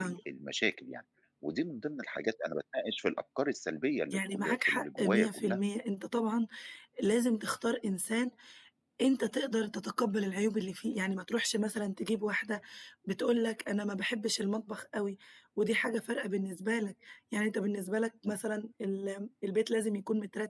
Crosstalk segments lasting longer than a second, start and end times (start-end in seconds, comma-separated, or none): 4.1-5.6